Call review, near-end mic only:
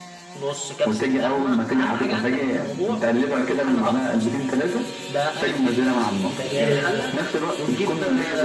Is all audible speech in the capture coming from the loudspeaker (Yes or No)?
No